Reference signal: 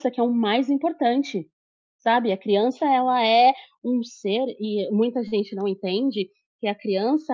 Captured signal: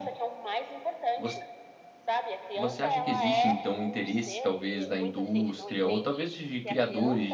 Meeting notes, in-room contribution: present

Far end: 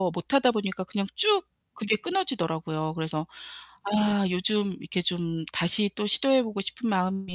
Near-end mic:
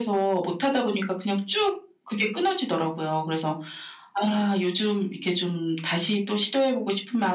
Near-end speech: none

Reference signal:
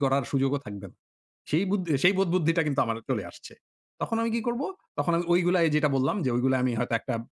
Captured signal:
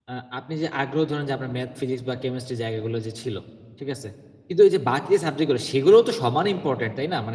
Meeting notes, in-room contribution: present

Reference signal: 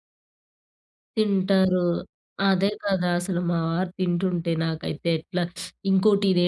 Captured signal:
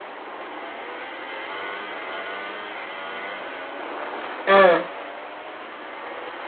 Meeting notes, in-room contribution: present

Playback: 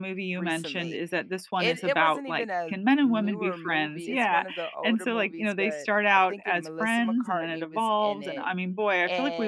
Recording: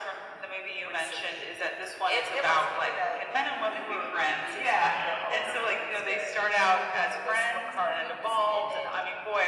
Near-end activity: none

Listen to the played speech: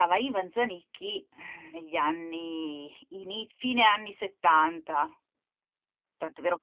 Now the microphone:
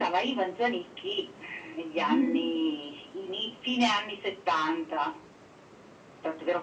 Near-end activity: present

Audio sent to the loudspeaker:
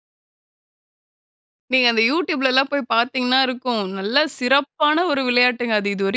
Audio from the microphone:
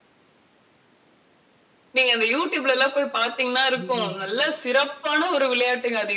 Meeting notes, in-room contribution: present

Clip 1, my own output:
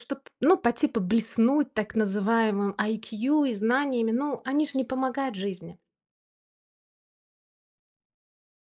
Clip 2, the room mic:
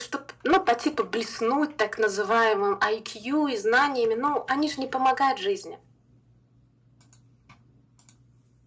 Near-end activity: none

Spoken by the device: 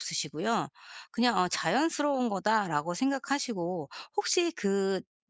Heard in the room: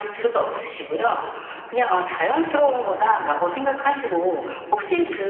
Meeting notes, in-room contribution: none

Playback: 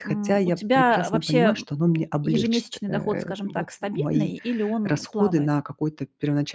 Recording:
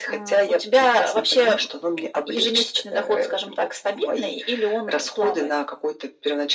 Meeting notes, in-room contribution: none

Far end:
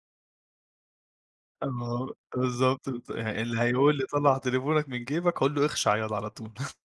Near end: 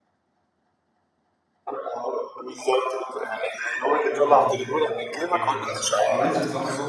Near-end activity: present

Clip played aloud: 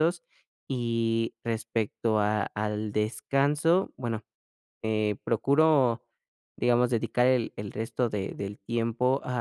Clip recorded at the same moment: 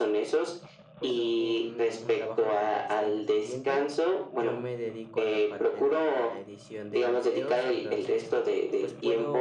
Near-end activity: present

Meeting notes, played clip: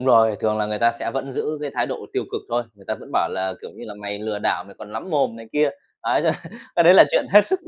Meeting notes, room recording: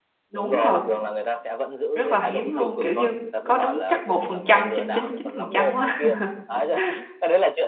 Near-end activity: present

